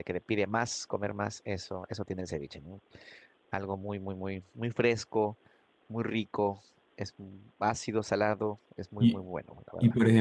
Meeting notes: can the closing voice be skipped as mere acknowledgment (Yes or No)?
No